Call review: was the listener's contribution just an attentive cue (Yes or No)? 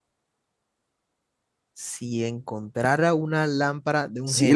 No